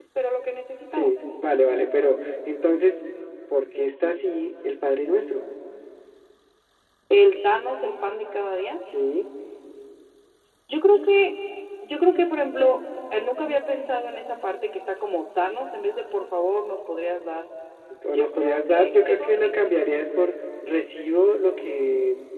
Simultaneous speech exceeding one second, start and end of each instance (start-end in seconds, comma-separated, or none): 18.1-19.5